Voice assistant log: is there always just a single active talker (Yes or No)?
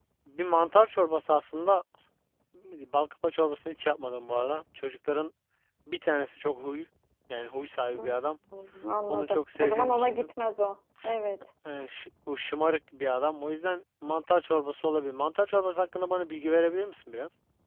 No